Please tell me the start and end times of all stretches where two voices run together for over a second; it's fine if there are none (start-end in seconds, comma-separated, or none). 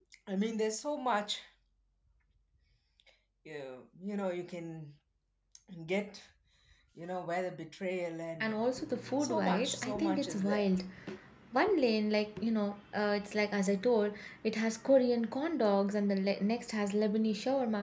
9.2-10.7